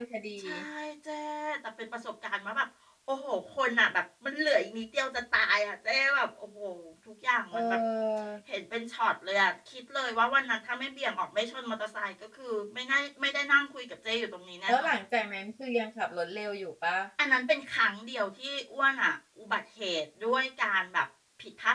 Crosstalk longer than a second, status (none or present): none